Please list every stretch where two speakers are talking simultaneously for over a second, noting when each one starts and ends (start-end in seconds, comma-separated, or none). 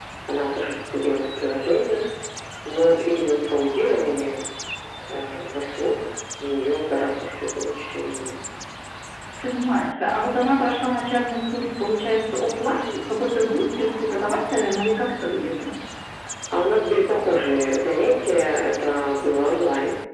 none